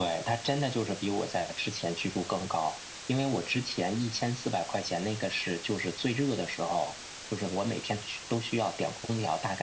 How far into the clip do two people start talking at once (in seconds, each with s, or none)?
none